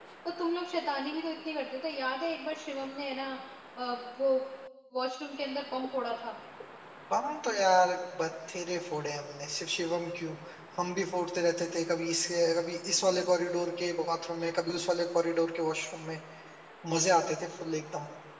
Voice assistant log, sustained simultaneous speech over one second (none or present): none